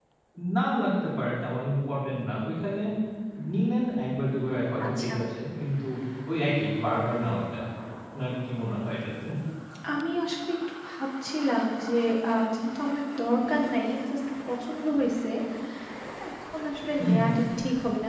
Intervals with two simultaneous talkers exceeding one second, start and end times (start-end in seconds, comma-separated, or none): none